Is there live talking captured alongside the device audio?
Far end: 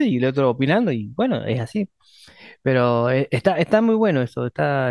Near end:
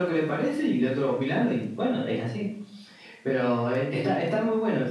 Yes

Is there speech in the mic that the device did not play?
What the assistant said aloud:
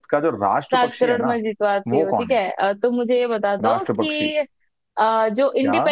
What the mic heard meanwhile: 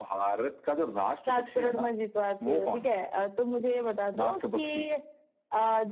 No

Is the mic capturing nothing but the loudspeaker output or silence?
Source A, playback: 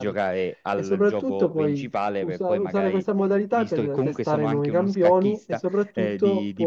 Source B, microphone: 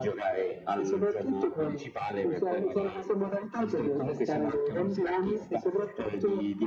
Yes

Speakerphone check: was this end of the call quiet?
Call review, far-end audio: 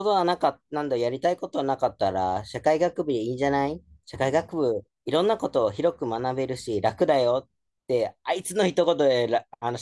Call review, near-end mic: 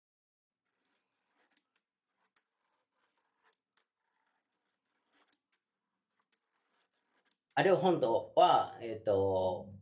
No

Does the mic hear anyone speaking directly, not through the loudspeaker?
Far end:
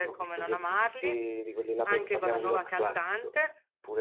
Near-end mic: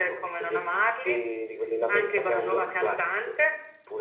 No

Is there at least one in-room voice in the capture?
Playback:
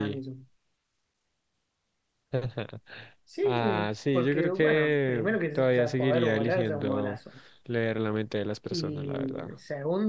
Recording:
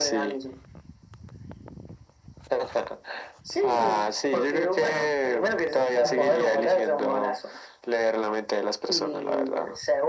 Yes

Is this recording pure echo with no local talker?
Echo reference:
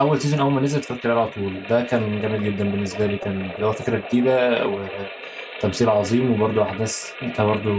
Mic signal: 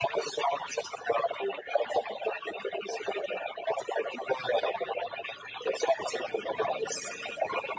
Yes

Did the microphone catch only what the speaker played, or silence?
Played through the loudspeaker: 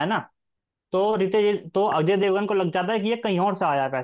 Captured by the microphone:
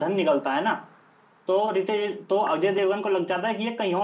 Yes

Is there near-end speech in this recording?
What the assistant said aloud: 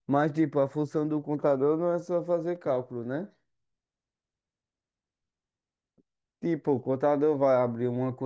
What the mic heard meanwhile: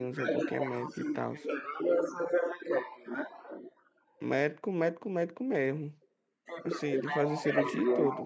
Yes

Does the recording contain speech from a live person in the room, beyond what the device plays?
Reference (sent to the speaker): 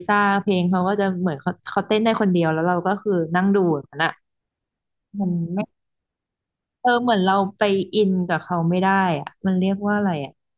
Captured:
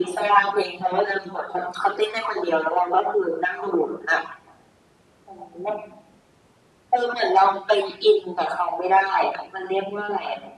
No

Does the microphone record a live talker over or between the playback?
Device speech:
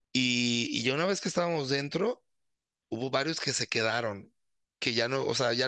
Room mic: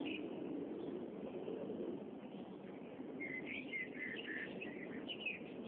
No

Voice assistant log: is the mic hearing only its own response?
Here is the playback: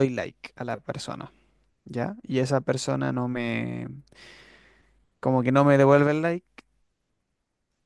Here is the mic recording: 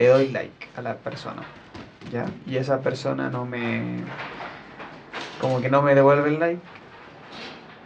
Yes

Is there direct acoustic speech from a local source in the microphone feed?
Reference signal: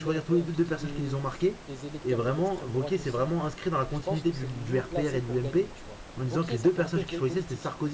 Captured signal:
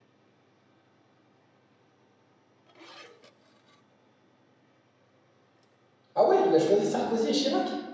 Yes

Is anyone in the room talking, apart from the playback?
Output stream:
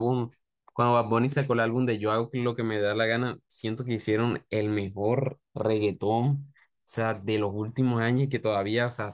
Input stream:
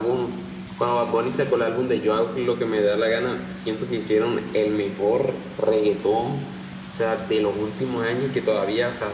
No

